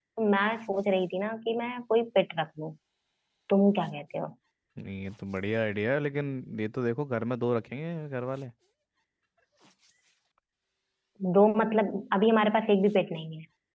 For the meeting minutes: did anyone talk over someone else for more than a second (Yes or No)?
No